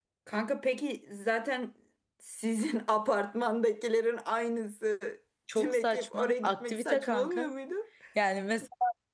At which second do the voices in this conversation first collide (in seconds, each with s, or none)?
5.5 s